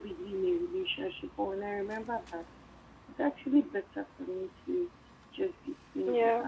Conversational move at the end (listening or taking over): listening